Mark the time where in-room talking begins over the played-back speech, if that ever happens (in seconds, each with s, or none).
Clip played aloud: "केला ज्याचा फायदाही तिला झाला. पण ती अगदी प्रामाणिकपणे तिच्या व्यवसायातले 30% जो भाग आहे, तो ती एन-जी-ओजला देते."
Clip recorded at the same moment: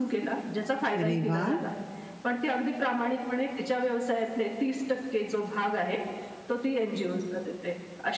1.0 s